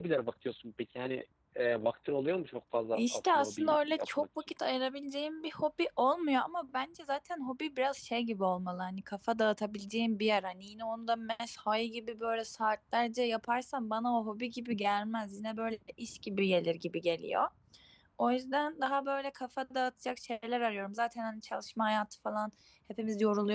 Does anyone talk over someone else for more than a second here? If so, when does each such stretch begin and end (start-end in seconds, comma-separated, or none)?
2.9-4.5